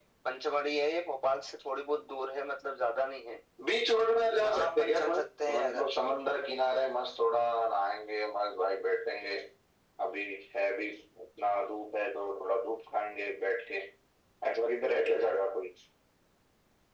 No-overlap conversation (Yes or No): No